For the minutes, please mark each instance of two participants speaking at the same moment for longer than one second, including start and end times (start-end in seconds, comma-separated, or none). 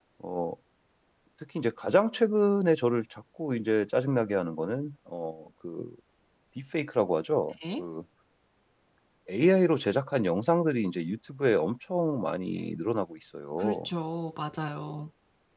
none